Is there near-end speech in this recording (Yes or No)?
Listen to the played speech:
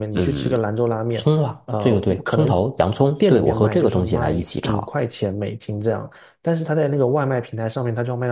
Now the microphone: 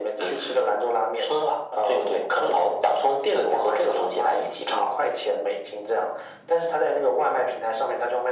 No